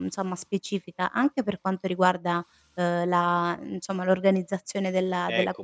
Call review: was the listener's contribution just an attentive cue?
No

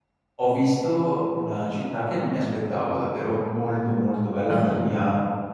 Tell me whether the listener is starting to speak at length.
No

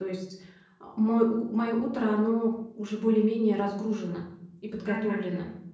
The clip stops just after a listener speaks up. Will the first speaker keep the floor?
No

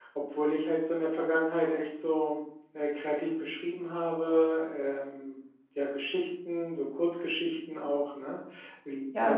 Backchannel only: No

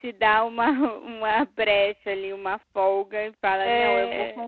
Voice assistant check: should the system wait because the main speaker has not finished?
Yes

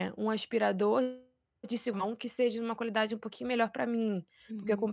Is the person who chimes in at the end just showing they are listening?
Yes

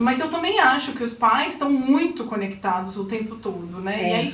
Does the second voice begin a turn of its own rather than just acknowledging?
No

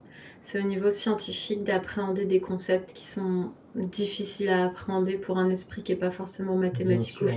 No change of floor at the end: No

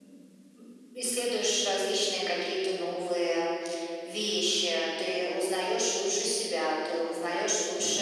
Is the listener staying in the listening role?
Yes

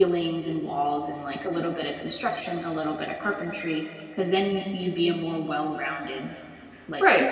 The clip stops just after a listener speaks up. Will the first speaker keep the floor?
No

